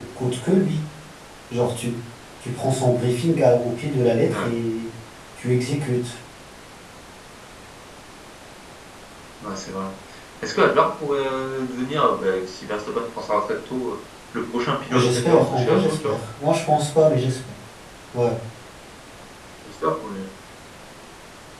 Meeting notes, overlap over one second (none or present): present